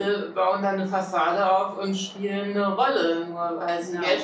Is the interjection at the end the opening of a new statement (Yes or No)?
No